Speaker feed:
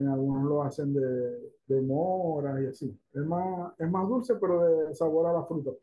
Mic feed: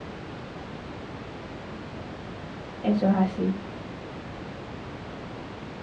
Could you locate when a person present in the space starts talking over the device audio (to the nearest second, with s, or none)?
3 s